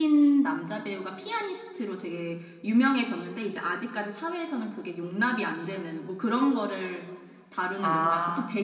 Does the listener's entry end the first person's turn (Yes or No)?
No